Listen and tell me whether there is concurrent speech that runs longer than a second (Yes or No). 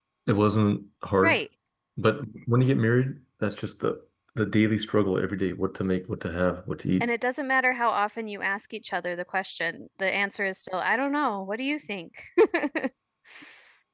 No